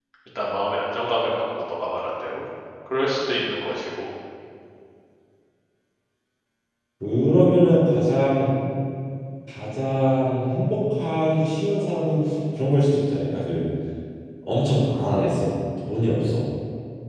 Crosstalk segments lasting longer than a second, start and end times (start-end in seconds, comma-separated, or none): none